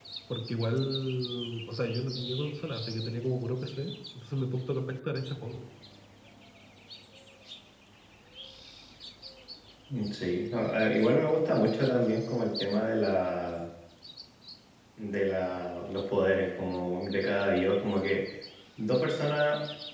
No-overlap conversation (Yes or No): Yes